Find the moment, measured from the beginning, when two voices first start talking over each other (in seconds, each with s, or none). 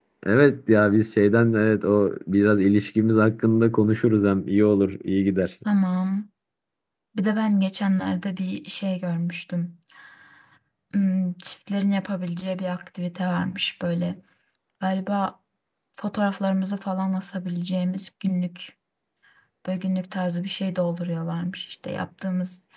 none